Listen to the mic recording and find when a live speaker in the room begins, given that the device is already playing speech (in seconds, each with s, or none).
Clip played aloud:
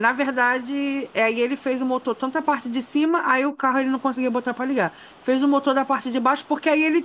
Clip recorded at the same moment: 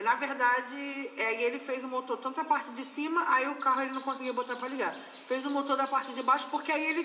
none